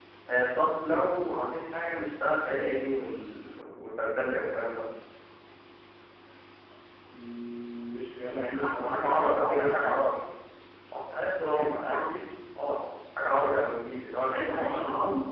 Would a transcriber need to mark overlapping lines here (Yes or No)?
Yes